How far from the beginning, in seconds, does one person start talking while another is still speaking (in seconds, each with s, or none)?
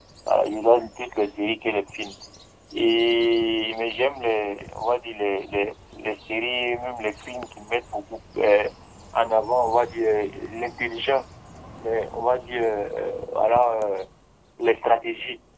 none